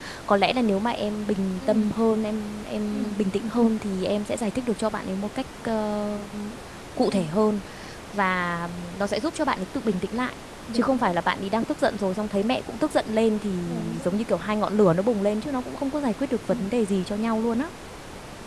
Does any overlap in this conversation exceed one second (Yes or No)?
No